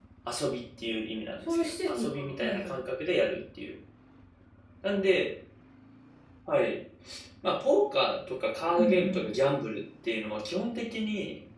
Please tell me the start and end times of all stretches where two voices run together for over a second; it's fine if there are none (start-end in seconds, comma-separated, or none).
1.5-2.8